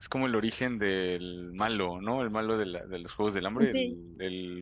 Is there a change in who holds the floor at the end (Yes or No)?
No